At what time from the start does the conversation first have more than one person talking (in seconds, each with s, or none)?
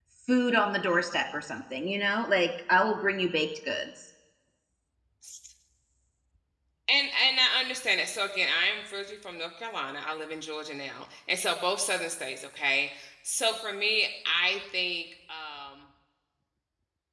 none